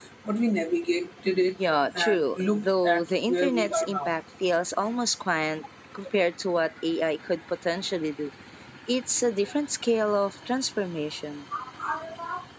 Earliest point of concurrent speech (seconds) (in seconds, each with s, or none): 1.9 s